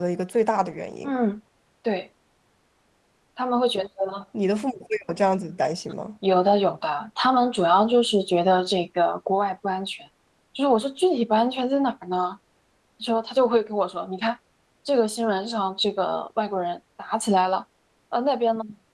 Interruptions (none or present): none